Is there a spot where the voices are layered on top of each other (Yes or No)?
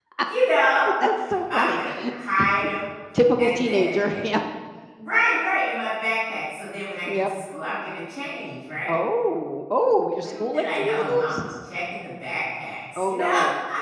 Yes